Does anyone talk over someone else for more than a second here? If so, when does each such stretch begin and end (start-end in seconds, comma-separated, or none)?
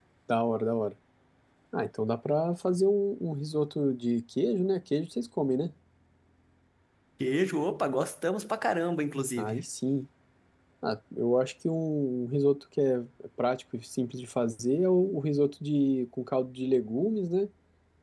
none